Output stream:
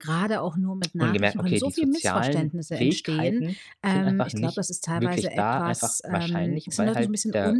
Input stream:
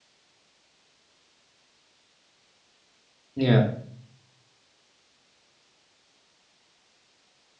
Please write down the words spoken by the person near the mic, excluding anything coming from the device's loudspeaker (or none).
Ja.